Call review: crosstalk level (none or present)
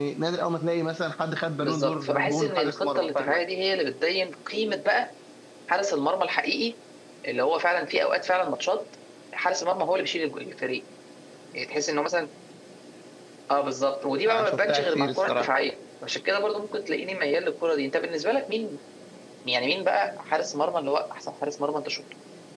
present